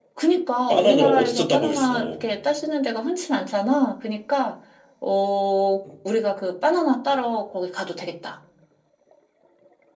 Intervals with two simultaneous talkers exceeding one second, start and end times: 0.7-2.1

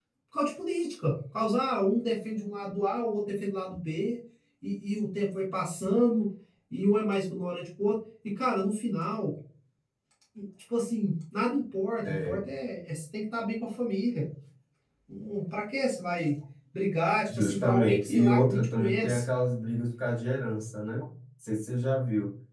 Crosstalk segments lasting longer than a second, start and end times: 17.4-19.2

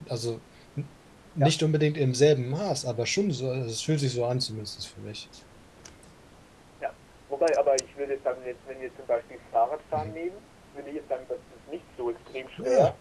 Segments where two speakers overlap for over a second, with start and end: none

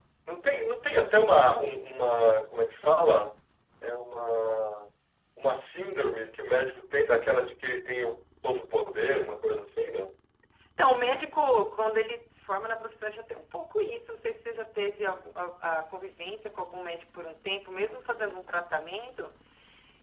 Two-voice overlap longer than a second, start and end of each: none

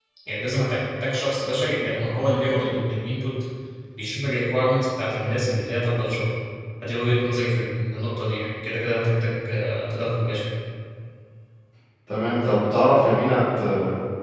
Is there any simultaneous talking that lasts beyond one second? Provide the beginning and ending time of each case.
none

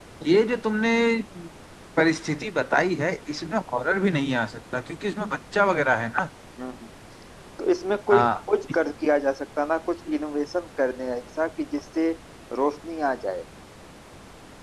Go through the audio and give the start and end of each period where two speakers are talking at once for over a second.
none

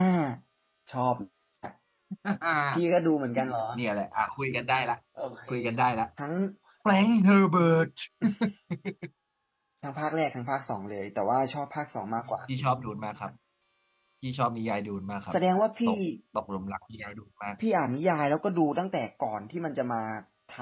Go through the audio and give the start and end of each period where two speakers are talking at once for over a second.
none

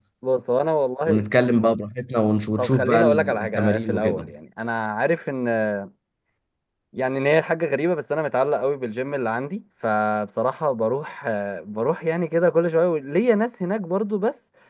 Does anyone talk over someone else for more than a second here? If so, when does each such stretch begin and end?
2.6-4.3

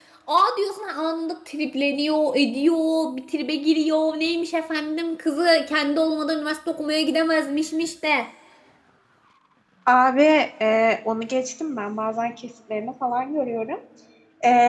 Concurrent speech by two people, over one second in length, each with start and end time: none

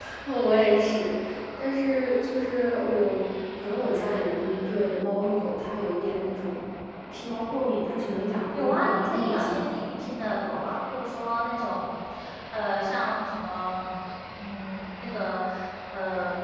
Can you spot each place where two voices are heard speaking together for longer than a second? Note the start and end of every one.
8.5-9.8

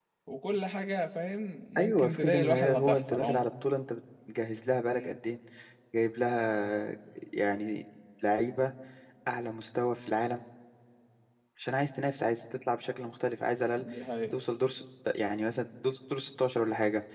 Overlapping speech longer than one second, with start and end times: 1.8-3.4

